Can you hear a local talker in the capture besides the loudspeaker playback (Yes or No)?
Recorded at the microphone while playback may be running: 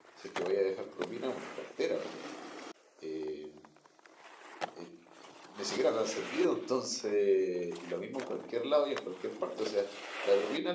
Yes